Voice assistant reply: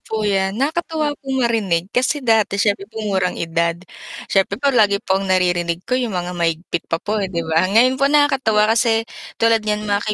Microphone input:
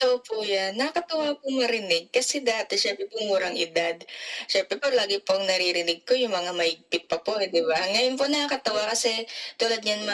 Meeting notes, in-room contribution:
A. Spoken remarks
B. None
B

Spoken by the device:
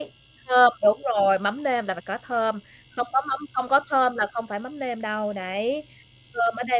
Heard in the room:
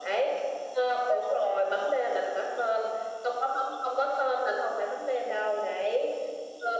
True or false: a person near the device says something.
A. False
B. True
A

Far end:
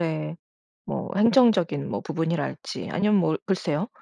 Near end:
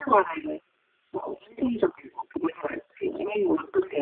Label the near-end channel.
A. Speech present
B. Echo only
B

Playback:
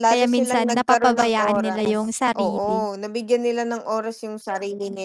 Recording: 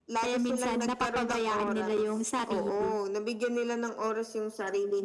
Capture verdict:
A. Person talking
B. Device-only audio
B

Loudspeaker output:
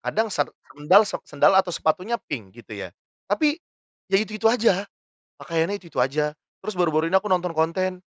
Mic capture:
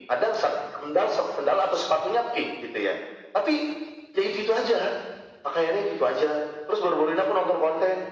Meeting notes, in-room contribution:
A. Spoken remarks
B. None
B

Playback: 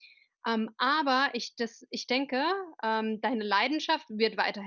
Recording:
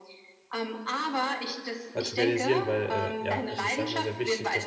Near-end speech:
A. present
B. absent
A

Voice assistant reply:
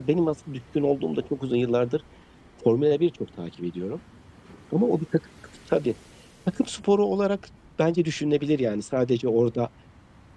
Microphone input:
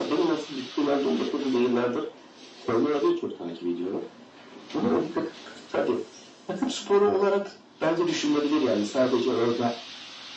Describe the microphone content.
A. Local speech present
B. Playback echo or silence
B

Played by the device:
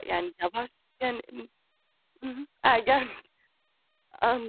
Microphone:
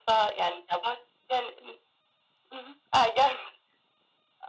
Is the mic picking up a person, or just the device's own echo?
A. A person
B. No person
B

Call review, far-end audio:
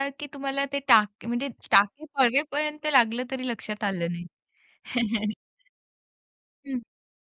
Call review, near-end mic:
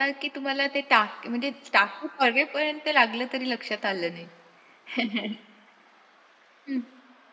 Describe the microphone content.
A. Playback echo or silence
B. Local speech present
A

